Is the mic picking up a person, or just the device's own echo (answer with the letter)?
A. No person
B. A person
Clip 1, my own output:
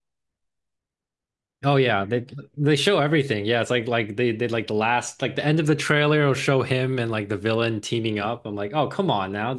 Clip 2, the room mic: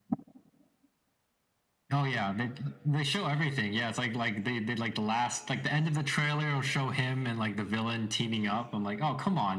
A